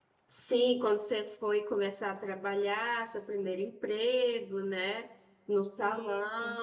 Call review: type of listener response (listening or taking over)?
listening